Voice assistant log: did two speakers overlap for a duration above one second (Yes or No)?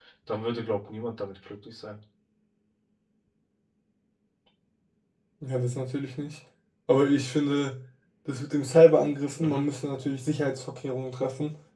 No